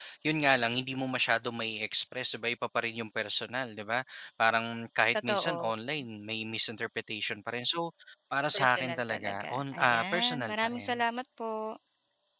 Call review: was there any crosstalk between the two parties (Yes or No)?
Yes